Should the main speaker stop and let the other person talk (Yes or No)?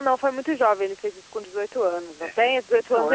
No